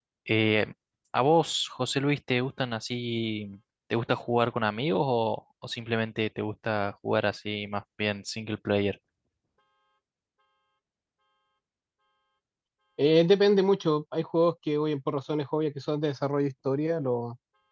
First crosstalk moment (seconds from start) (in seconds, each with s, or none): none